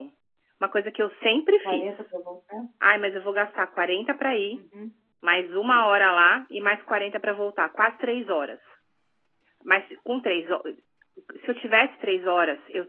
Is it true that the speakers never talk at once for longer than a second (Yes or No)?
Yes